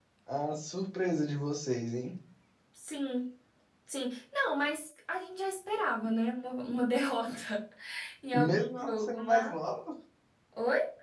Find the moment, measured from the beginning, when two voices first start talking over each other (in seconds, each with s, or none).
8.3 s